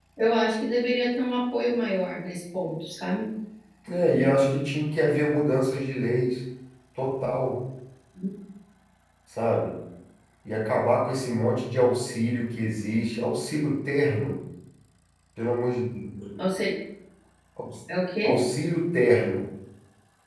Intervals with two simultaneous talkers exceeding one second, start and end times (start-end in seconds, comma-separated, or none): none